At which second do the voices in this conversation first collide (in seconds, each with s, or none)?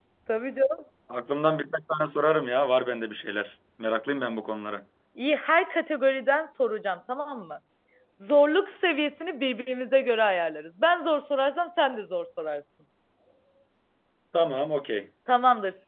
none